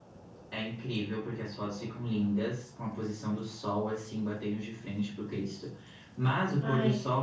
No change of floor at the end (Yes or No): Yes